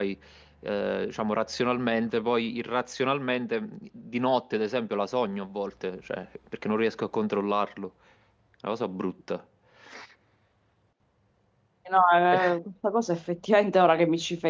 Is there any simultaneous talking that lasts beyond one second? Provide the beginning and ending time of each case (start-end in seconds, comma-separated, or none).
none